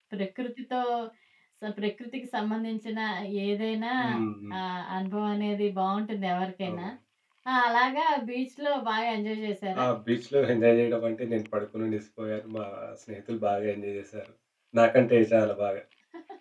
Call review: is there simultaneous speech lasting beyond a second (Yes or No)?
No